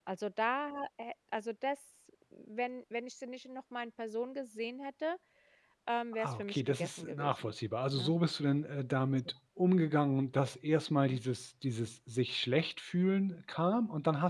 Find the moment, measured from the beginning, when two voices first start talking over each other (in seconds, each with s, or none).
6.2 s